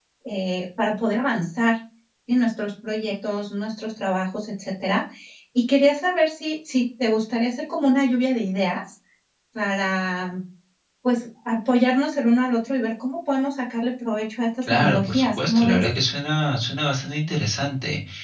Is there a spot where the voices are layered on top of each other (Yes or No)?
Yes